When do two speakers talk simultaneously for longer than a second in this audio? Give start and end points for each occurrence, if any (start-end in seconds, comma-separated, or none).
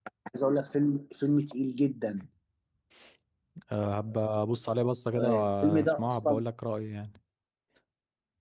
5.1-6.4